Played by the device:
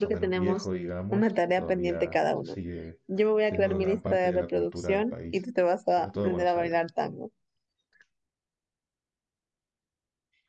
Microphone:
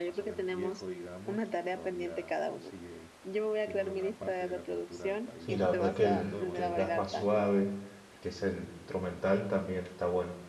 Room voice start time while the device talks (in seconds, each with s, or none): 5.4 s